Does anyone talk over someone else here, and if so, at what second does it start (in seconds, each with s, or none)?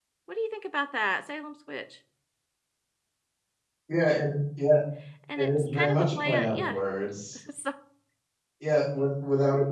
5.4 s